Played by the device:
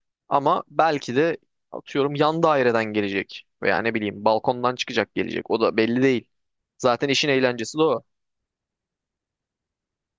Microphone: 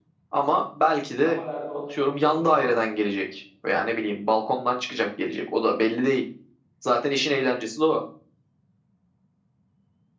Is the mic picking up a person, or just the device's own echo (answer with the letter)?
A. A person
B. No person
A